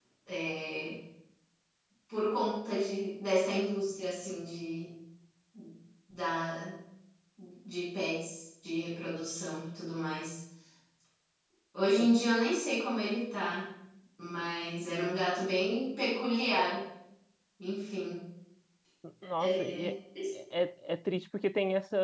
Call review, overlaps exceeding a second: none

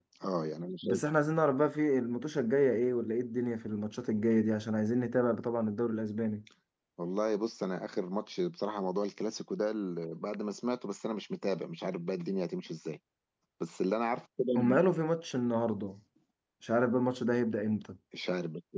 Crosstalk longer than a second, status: none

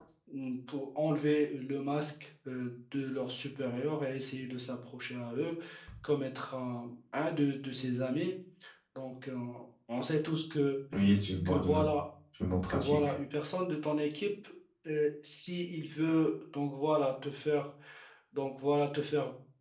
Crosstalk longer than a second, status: none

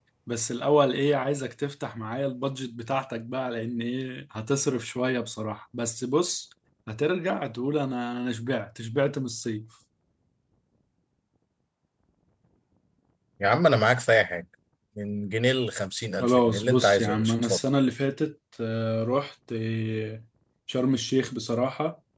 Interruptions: present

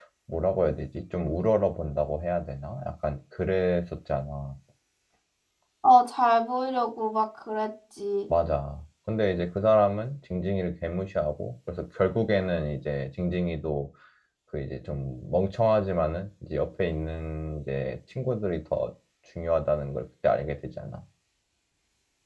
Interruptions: none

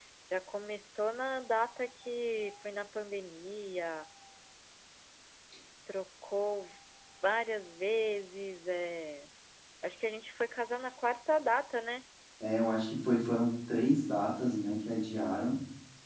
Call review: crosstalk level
none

